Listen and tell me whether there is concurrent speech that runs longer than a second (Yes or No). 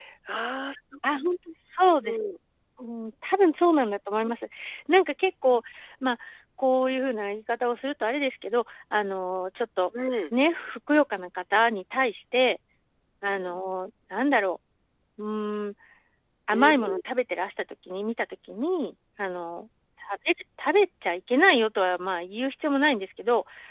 No